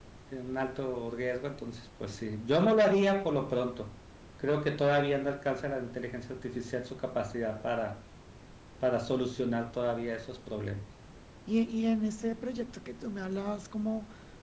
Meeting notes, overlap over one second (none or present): none